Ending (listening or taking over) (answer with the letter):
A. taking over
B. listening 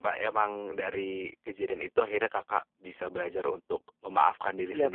A